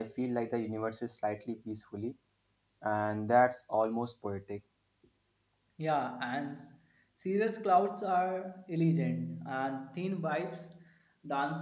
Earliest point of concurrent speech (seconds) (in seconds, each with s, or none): none